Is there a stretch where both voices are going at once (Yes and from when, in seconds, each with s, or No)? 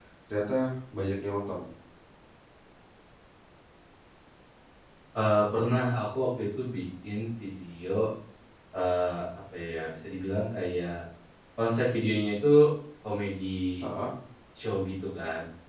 No